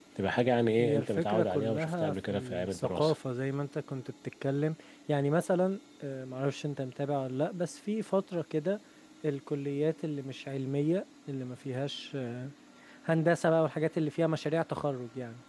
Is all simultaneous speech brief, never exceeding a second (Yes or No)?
No